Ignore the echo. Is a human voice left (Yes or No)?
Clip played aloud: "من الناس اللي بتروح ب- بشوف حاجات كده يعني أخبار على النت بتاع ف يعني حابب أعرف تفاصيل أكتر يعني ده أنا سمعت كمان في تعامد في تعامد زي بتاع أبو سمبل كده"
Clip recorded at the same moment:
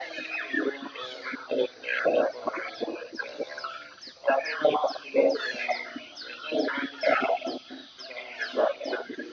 No